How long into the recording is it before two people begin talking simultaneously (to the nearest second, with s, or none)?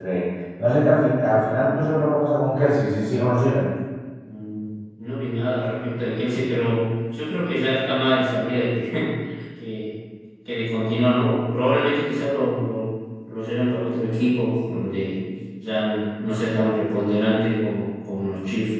none